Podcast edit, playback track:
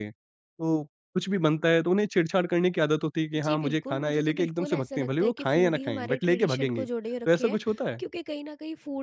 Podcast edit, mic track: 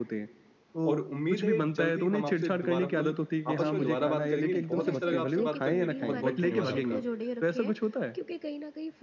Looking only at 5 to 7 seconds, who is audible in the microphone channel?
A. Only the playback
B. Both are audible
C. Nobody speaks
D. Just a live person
B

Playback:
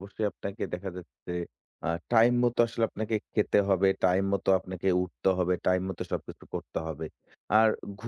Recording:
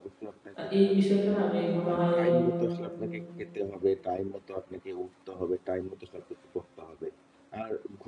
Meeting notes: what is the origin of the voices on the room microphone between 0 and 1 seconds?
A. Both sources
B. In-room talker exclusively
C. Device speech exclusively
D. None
A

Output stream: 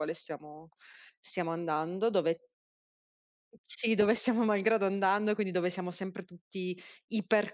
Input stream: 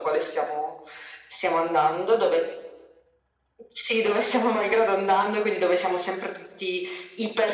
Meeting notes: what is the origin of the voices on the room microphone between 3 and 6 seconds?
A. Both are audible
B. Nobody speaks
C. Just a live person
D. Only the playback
D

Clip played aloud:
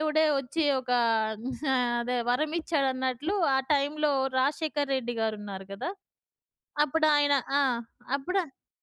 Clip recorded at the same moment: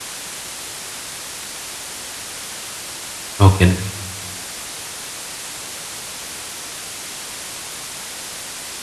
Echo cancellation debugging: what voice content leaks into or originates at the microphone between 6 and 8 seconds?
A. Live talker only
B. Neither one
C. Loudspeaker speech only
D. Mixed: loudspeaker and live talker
B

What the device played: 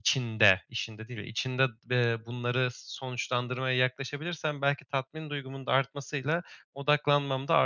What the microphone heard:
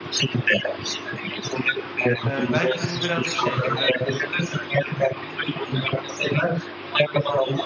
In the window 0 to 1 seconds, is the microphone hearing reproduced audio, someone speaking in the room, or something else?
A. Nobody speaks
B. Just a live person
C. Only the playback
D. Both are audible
C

